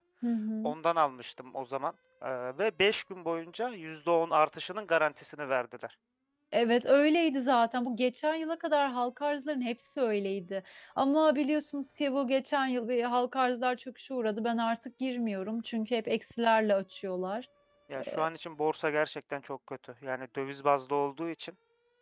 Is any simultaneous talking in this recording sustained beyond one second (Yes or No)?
No